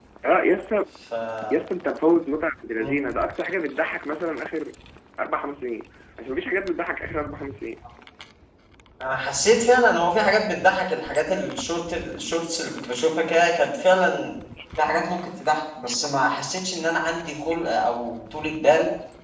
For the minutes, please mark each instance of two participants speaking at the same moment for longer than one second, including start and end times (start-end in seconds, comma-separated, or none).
none